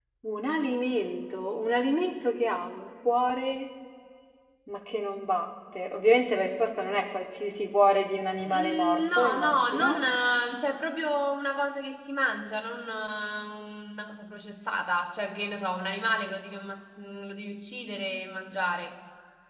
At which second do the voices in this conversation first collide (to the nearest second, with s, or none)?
8 s